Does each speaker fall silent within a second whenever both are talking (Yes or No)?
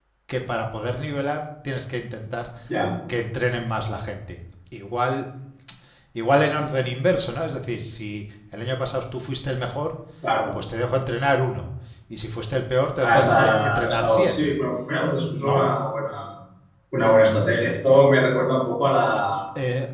No